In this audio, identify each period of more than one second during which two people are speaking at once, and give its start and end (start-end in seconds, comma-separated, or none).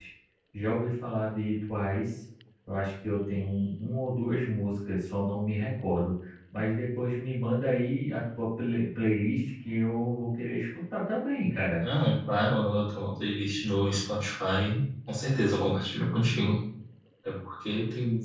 none